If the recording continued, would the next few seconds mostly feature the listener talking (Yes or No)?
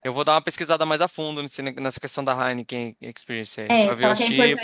Yes